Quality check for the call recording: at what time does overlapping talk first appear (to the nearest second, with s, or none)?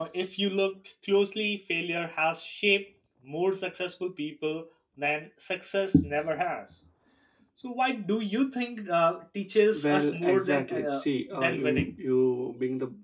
10 s